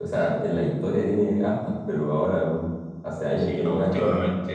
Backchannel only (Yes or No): No